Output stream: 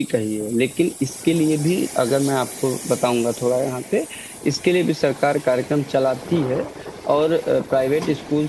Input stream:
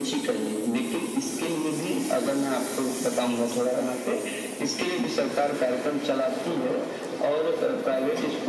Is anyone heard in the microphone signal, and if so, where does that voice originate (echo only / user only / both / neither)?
echo only